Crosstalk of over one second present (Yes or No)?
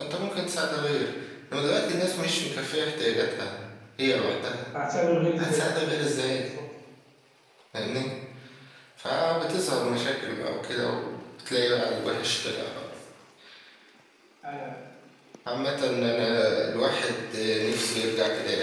No